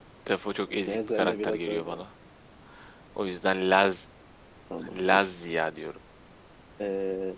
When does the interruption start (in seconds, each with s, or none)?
0.7 s